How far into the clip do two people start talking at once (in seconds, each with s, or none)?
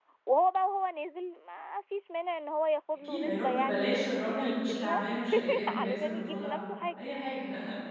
3.0 s